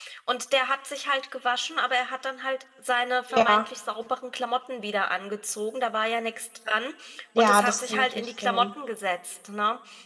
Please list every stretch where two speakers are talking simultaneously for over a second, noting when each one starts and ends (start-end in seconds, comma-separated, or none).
7.4-8.7